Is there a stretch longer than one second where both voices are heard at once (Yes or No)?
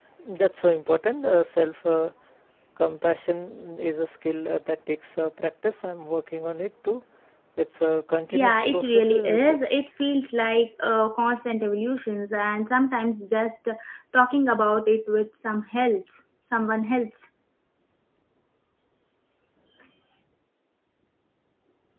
Yes